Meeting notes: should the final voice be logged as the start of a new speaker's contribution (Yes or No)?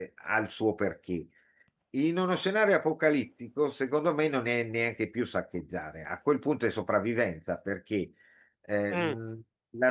No